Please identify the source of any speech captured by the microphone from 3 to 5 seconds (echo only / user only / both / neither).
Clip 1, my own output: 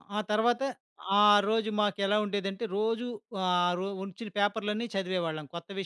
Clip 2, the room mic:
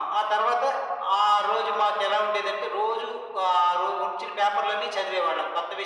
echo only